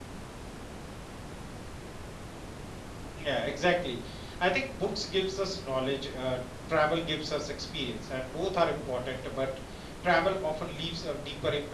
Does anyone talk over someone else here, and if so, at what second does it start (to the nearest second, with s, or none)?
none